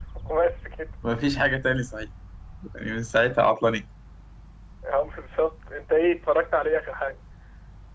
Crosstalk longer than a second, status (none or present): none